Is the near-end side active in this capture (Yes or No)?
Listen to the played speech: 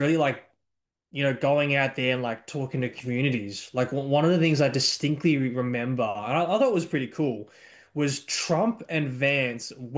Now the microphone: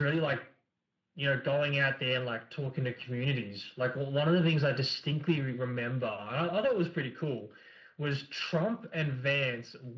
No